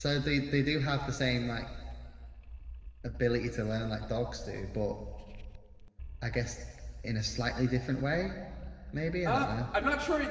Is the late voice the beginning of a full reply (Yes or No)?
Yes